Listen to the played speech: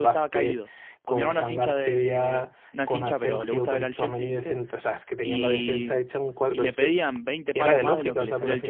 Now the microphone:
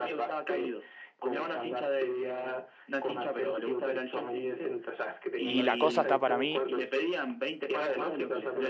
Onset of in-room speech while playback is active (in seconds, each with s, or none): 5.4 s